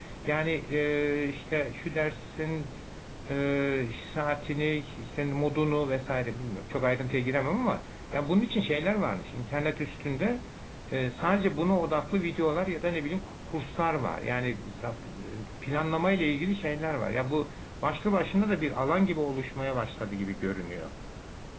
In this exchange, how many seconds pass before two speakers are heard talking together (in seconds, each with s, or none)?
none